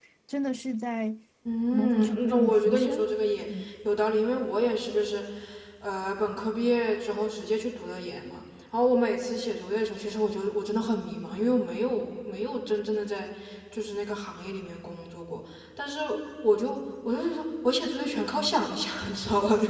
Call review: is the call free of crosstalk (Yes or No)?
No